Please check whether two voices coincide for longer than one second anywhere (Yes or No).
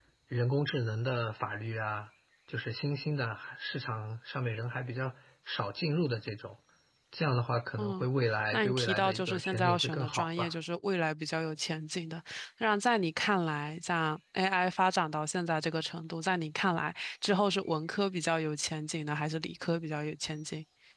Yes